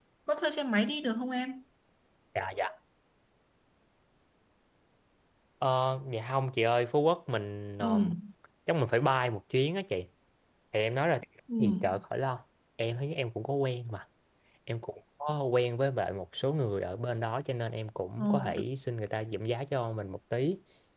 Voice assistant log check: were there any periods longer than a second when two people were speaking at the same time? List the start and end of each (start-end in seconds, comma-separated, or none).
none